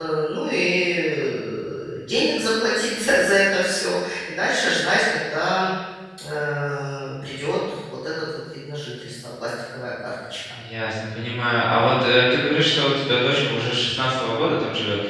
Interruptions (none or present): none